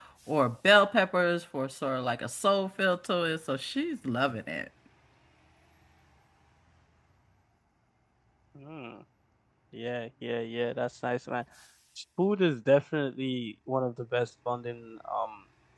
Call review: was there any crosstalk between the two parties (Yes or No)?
No